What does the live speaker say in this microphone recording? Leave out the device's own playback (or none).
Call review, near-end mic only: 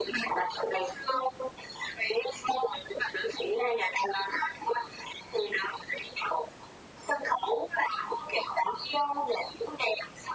none